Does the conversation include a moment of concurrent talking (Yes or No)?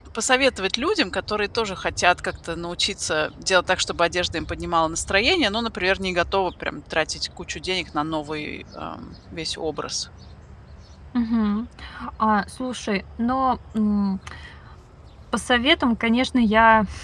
No